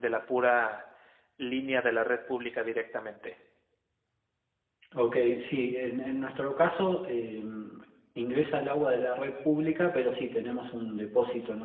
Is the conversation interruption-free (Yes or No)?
Yes